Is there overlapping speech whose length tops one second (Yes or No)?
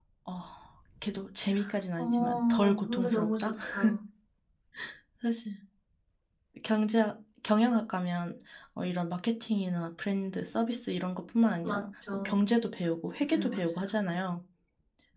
Yes